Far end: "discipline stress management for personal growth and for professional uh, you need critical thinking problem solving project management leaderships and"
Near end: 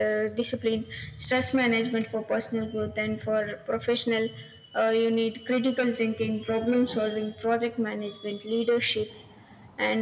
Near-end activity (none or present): none